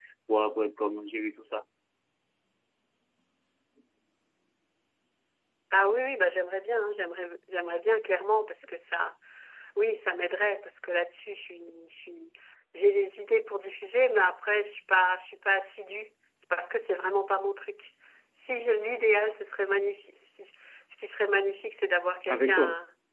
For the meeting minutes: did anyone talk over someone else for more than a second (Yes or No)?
No